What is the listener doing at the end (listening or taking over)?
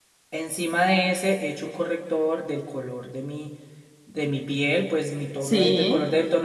listening